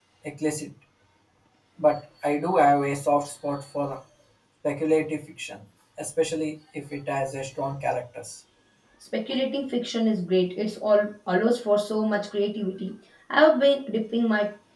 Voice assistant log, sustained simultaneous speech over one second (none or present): none